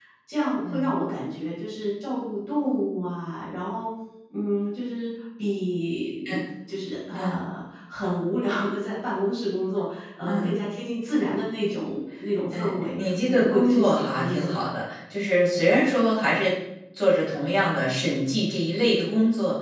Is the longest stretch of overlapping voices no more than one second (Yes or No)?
No